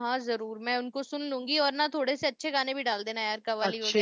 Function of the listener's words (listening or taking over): taking over